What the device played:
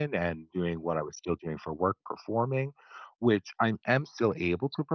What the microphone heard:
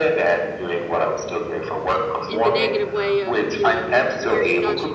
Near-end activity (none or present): present